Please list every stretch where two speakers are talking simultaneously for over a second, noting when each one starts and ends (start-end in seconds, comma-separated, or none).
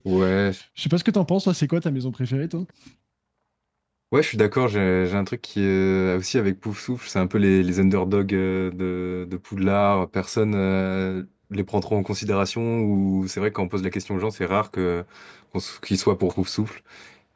none